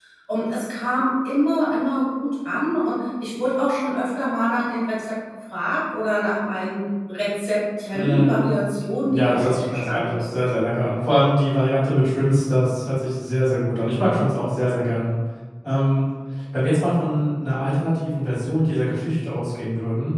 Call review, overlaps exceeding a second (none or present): present